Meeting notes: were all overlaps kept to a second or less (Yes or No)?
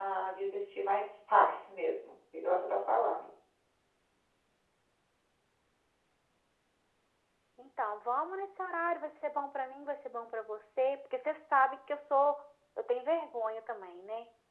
Yes